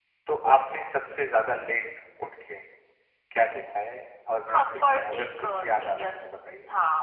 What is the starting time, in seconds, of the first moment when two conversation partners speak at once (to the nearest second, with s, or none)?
4 s